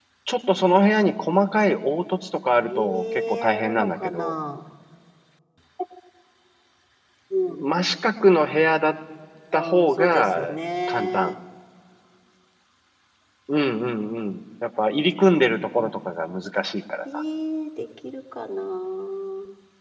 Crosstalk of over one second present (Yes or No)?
Yes